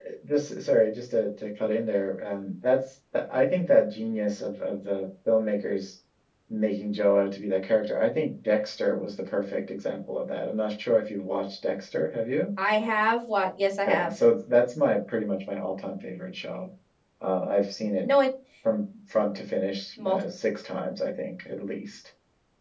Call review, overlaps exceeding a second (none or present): none